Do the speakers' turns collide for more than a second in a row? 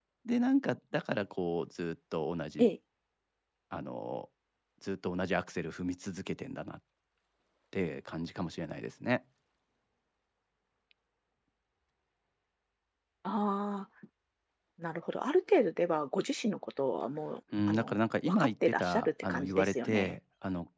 Yes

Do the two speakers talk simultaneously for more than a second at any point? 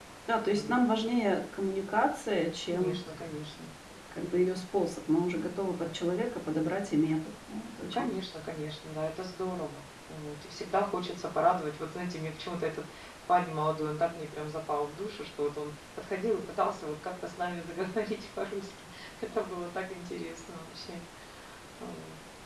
No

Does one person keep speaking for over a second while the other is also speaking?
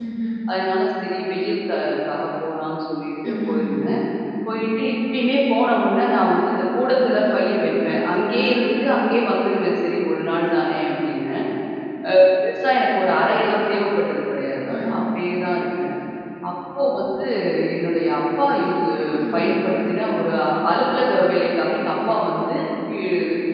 No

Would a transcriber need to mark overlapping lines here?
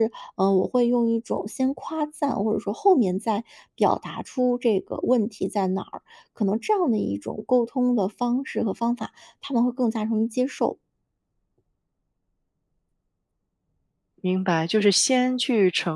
No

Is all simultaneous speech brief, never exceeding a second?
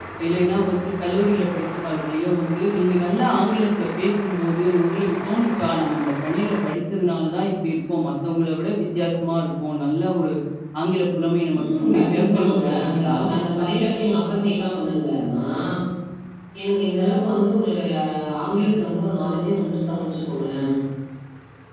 No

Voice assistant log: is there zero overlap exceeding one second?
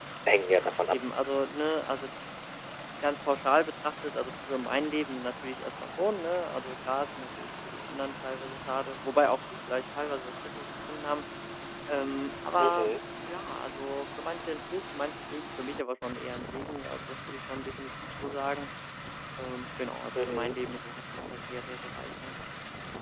Yes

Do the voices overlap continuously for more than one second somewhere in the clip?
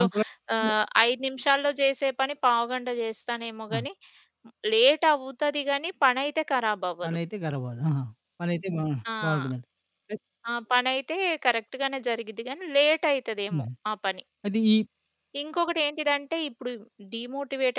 No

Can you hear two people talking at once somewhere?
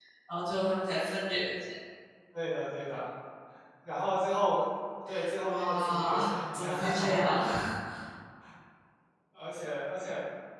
Yes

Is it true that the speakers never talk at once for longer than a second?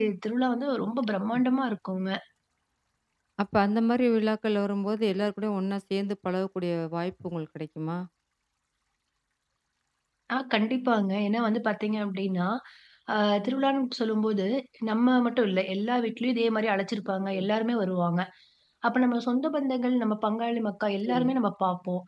Yes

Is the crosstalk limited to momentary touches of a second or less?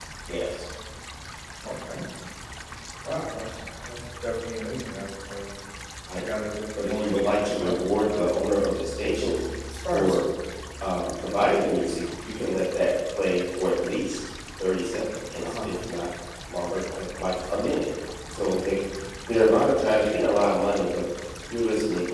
No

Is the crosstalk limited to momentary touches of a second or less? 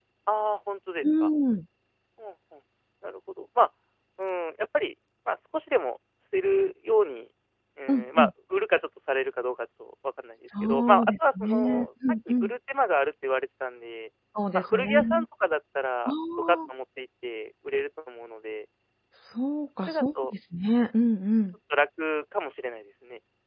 No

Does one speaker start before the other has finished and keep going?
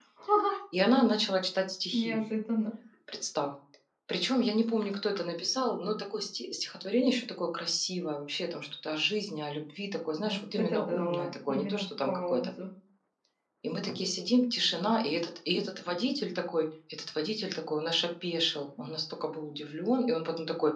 Yes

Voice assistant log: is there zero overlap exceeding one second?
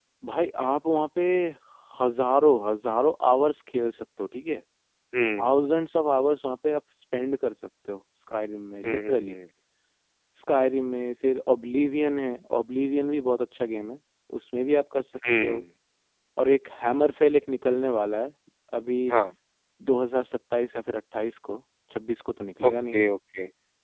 Yes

